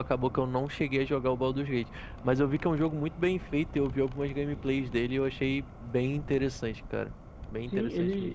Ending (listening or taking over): taking over